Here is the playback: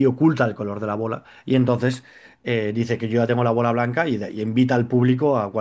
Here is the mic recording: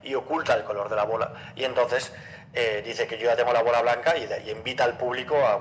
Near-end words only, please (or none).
none